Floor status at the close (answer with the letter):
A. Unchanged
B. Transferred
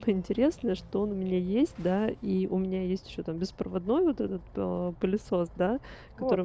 A